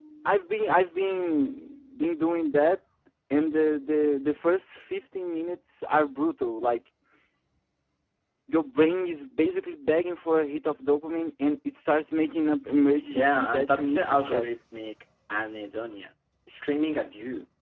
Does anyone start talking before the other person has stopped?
Yes, from 13.0 s

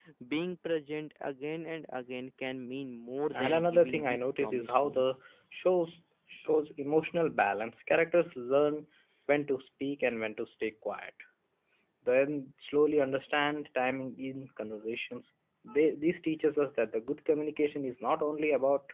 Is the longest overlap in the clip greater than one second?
Yes, from 3.3 s

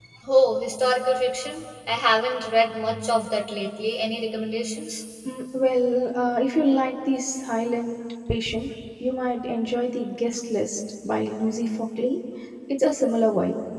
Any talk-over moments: No

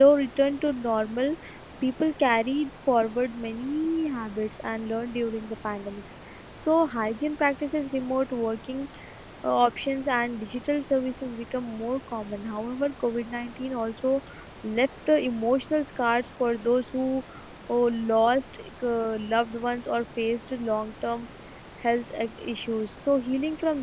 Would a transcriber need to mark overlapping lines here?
No

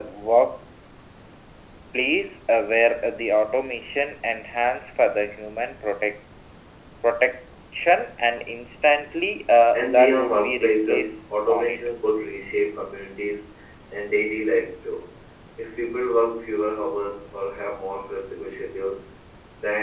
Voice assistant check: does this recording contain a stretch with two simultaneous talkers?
Yes, from 9.7 s

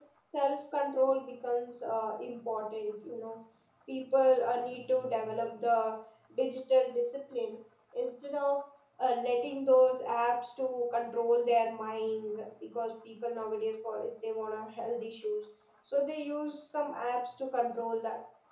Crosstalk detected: No

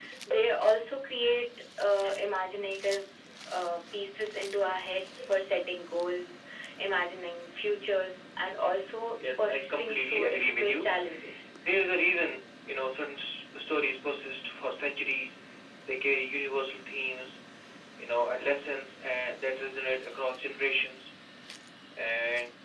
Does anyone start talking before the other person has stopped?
Yes, from 9.2 s

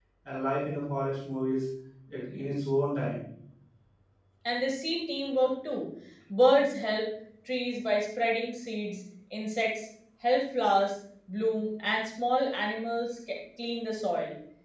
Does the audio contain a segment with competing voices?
No

